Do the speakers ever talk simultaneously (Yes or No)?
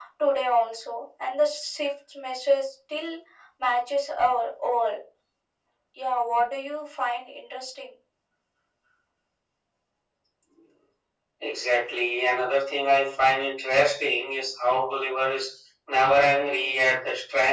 No